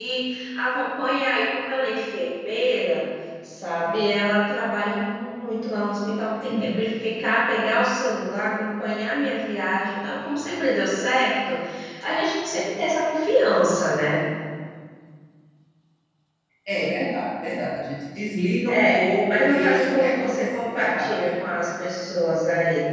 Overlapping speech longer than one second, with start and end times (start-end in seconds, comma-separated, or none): 18.7-21.2